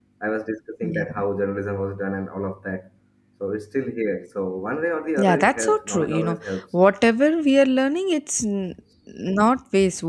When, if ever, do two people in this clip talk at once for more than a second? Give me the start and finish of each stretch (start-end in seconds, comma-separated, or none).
5.2-6.6